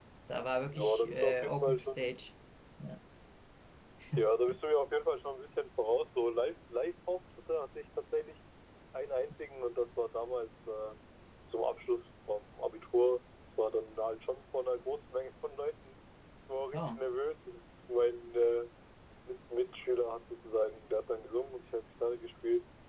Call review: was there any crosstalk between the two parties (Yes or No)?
Yes